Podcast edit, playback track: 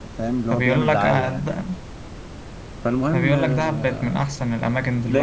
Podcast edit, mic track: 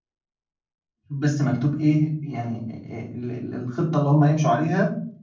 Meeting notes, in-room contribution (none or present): present